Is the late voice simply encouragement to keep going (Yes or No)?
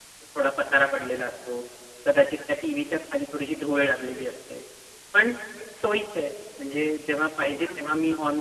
Yes